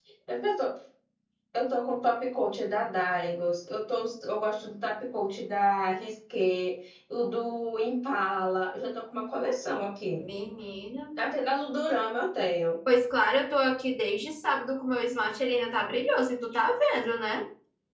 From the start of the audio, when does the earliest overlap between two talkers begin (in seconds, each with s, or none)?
none